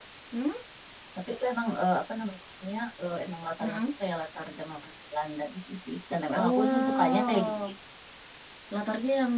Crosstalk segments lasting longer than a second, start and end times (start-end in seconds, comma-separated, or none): 6.3-7.6